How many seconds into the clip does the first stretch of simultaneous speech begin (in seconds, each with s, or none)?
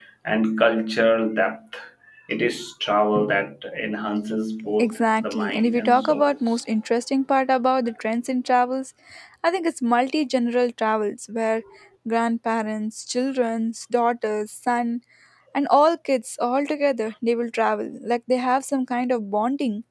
4.8 s